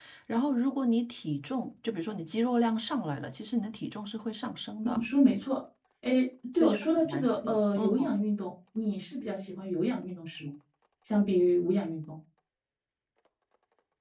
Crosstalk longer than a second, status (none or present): present